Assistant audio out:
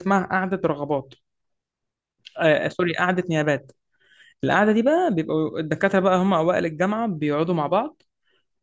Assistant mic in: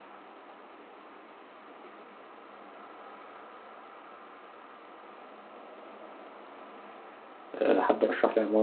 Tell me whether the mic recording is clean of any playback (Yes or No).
Yes